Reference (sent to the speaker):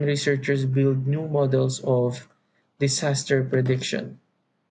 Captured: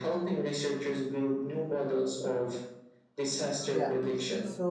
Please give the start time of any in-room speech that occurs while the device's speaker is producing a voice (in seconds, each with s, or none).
3.7 s